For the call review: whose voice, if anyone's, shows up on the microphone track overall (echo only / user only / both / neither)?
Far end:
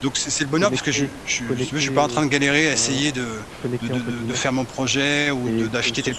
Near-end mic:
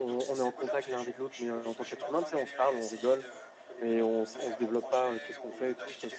both